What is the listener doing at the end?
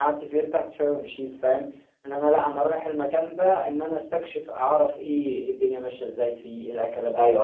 taking over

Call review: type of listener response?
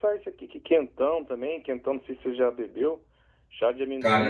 listening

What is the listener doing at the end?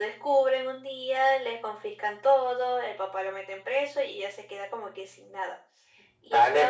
taking over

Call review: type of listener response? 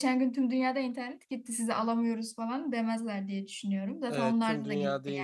taking over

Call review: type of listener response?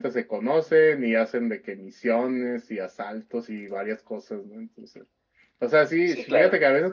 listening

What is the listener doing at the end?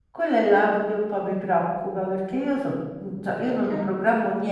listening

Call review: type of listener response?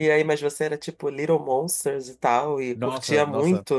taking over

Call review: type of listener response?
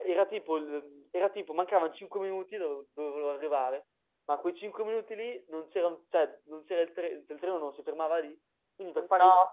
listening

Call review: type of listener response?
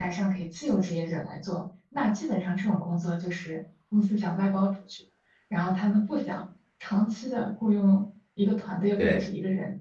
listening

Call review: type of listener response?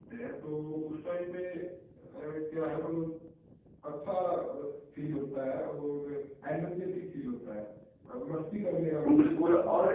taking over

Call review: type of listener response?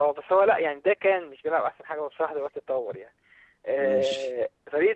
listening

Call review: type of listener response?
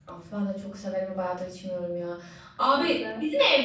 listening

